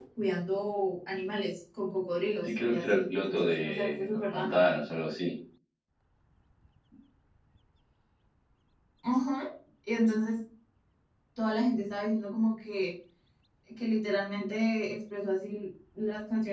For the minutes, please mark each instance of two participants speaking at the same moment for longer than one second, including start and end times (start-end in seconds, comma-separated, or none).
2.4-4.6